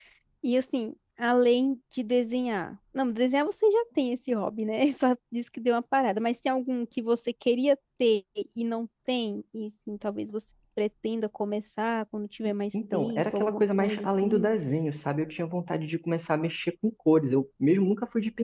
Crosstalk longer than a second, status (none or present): present